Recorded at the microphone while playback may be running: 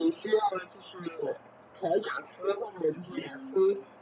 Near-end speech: present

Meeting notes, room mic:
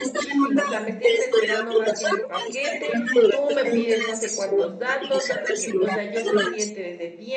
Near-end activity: present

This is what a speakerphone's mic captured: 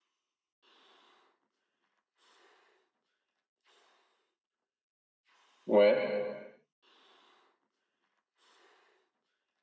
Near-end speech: present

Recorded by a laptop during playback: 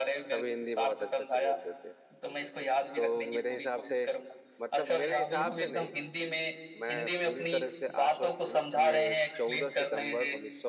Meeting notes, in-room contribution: present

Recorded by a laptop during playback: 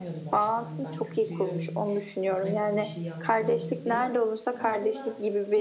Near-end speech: present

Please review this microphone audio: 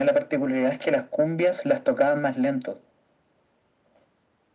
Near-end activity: none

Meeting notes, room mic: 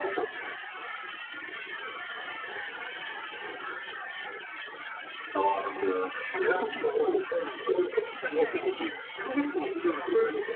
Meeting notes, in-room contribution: present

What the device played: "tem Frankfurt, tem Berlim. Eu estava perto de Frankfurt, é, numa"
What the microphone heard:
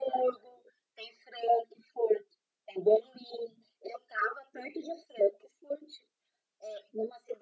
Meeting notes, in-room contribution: none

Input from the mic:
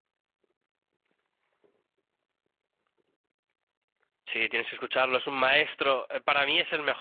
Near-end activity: present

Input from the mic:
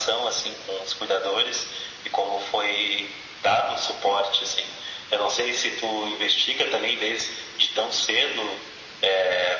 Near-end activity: none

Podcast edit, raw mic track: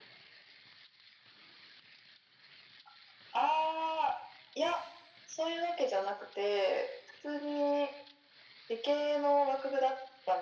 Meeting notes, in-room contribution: none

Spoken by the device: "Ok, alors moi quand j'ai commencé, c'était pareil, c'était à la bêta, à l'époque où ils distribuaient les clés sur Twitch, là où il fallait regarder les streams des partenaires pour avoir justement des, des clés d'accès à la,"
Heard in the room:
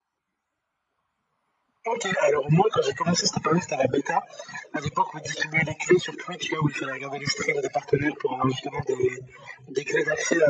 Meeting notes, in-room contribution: none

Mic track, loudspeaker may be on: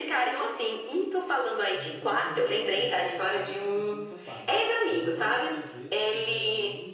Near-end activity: present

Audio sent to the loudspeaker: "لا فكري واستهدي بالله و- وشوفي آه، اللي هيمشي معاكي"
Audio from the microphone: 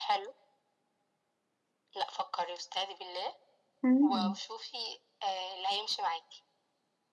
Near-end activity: present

